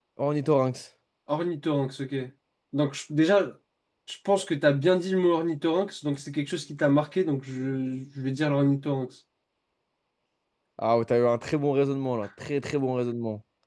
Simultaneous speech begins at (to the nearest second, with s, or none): none